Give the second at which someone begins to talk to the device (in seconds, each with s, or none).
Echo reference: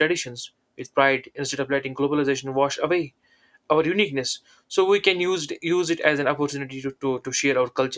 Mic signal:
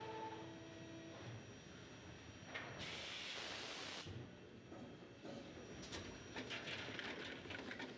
none